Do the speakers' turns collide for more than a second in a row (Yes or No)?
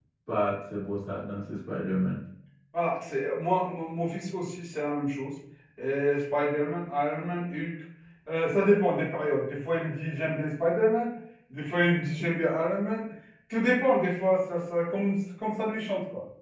No